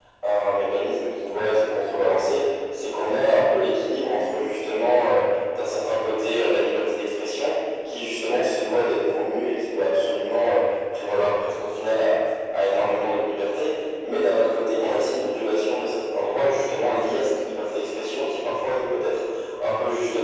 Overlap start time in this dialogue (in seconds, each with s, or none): none